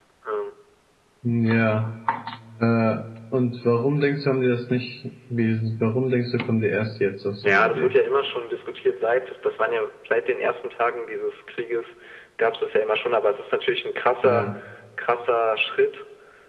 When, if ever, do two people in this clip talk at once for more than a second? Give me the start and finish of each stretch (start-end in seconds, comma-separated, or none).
none